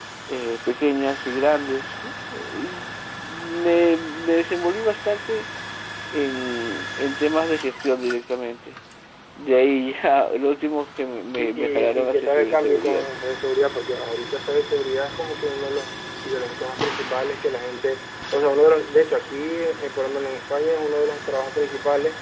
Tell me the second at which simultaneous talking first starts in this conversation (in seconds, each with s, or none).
11.4 s